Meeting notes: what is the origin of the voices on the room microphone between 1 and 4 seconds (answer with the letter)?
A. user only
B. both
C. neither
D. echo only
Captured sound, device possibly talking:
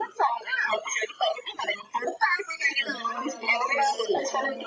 B